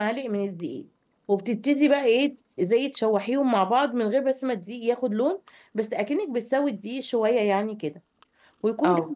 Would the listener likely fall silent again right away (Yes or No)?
Yes